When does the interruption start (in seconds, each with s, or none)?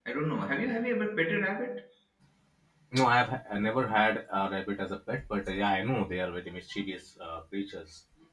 none